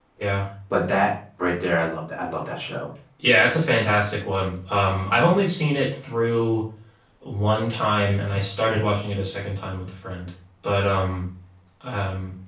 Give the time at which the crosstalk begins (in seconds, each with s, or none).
none